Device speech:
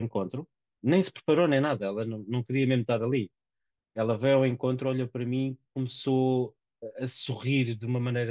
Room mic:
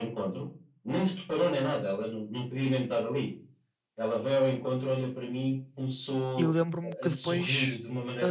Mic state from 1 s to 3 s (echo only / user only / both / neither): echo only